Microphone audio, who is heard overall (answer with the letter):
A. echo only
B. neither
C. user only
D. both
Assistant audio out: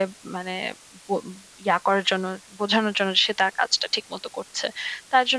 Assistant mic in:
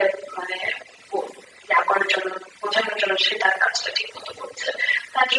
A